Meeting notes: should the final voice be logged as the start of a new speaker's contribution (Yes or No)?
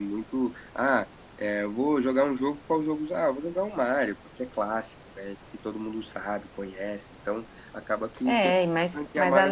Yes